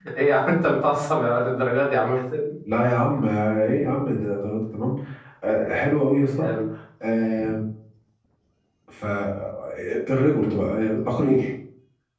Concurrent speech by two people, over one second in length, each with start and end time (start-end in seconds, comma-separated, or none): none